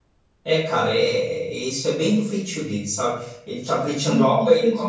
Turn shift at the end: No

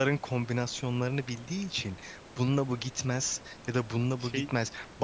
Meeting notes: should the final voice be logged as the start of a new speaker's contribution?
No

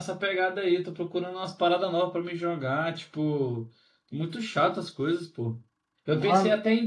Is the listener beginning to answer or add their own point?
No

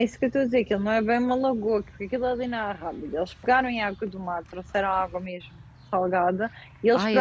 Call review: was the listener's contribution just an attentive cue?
Yes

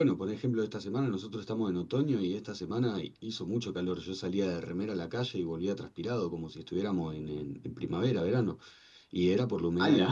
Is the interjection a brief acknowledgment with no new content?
Yes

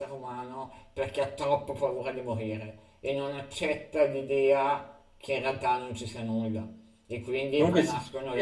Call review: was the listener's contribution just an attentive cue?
Yes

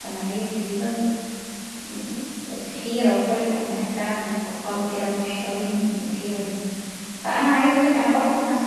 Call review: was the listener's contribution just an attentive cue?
Yes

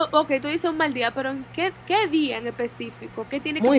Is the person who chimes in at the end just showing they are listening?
No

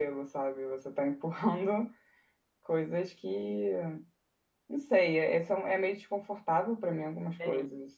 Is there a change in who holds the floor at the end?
Yes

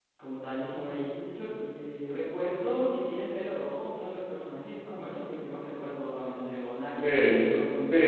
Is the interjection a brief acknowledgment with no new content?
No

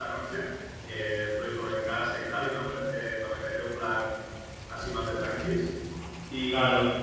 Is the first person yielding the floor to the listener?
No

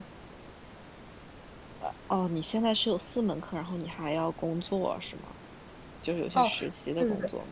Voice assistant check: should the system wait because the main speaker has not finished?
No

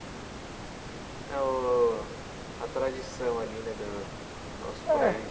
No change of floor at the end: Yes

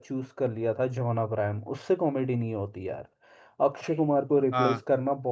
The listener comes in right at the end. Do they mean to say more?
No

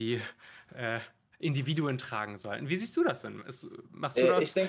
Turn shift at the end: Yes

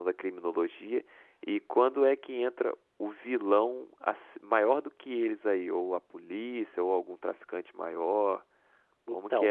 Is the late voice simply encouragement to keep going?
Yes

